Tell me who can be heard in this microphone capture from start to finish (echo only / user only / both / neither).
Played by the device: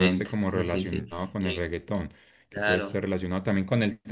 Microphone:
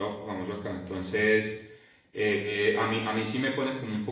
user only